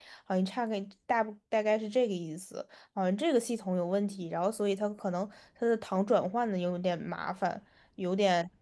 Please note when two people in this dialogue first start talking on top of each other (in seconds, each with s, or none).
none